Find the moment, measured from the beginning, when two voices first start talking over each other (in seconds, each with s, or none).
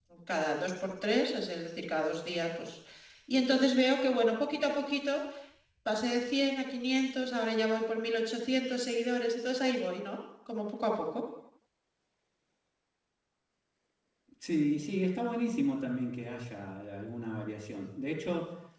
none